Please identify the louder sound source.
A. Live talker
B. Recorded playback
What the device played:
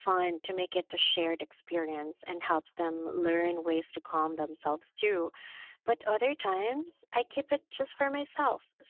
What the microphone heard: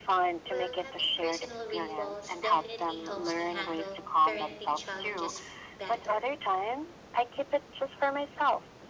B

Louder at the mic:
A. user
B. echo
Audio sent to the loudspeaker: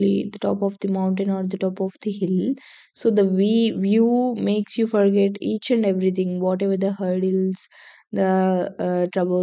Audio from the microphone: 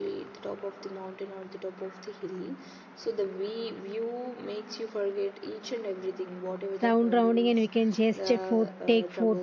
A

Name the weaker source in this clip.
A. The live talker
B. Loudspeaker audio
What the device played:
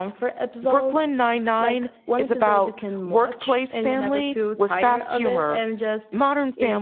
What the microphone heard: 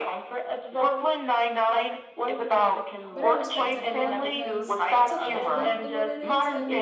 A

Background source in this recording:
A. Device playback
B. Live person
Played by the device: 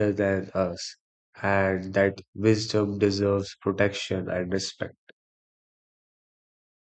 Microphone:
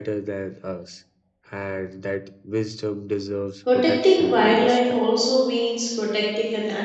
A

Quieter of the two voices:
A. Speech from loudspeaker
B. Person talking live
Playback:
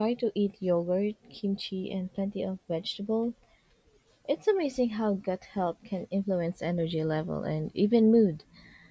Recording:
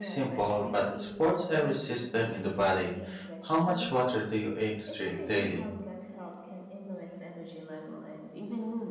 A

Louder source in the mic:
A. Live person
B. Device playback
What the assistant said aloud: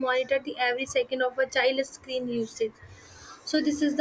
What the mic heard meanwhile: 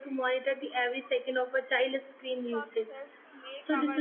B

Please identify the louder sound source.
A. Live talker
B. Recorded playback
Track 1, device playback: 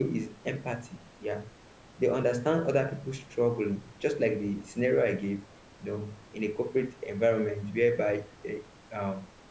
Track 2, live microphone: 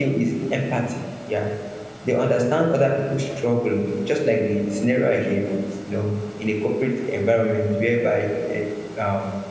B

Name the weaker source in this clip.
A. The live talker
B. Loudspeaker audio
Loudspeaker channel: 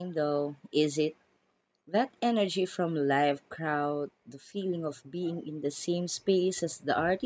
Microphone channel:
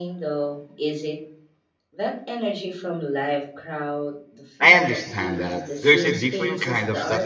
B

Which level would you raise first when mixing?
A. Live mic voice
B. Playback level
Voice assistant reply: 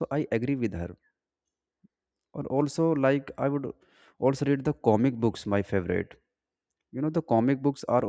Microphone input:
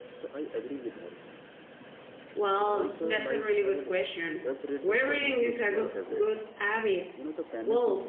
B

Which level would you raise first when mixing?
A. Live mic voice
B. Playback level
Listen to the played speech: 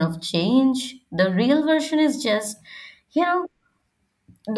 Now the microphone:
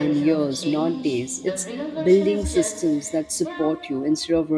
B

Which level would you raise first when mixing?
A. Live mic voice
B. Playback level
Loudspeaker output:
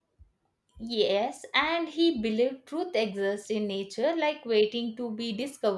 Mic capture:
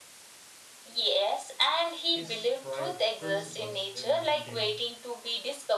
A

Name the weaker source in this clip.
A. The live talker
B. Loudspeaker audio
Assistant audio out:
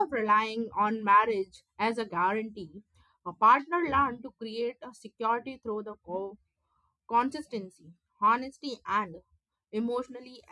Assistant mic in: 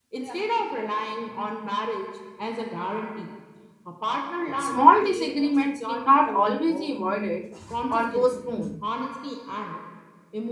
B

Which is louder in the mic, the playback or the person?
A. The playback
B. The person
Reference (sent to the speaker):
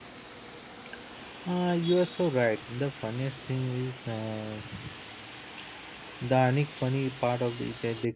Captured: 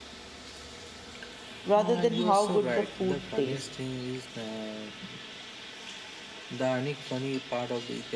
B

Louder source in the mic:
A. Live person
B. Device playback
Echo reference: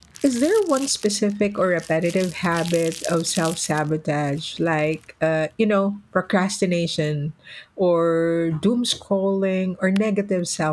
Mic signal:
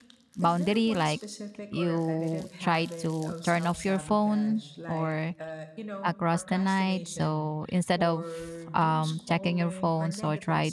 A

